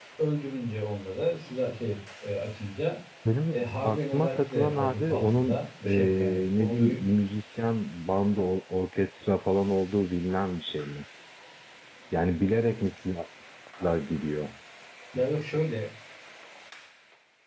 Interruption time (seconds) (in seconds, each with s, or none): 3.5 s